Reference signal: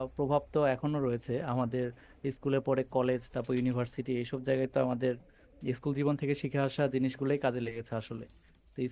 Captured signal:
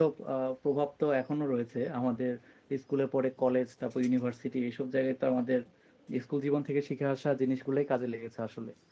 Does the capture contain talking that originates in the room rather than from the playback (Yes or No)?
No